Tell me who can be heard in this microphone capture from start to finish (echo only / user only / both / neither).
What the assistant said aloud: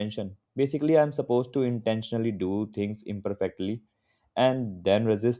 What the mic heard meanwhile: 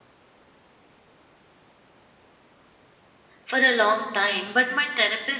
user only